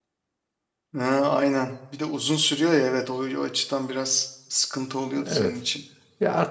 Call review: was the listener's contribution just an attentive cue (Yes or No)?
No